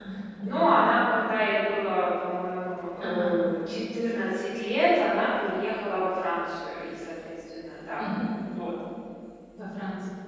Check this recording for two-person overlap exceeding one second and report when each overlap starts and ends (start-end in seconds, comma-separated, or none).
none